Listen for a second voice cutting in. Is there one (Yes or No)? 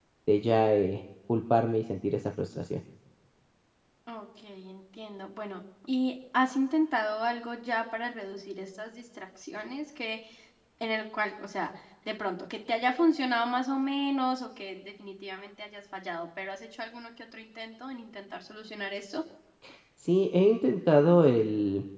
No